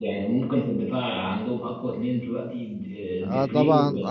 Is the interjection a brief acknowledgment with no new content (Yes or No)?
No